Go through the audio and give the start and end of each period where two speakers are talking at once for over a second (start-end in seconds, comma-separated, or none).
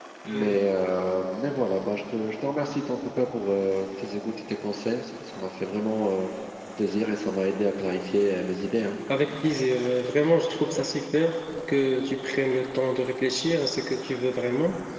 none